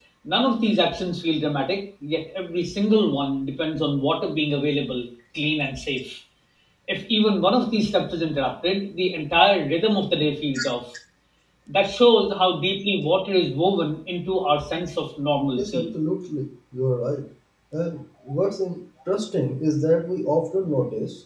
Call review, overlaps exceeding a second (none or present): none